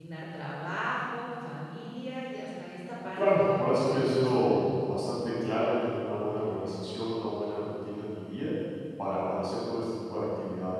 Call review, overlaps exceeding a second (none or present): present